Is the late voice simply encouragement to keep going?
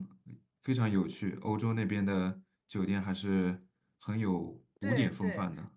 No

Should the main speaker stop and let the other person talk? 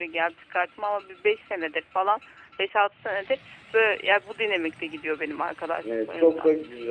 Yes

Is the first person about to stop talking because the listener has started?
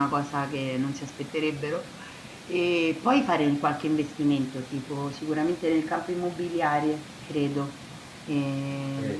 Yes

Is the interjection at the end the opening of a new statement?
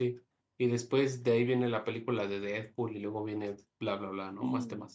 Yes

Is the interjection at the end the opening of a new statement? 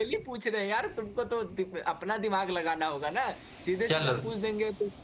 No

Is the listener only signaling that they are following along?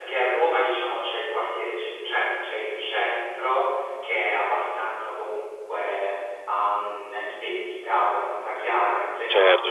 No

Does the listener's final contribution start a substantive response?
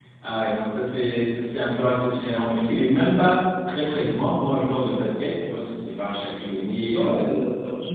Yes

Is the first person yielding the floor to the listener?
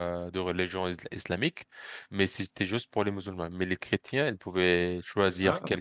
No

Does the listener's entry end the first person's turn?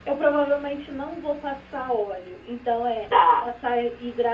No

